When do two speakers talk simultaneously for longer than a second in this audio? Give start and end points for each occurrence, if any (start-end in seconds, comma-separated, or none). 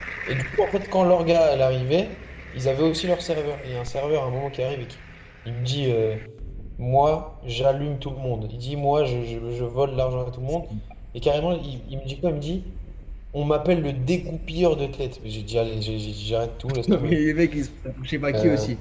none